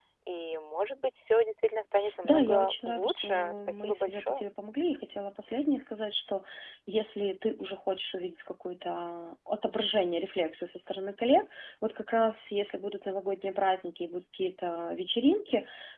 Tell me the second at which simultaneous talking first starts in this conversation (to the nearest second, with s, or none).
2 s